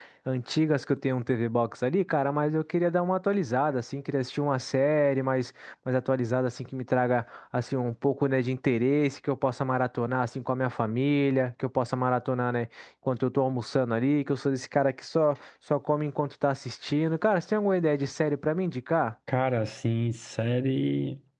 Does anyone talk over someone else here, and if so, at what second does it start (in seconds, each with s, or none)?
none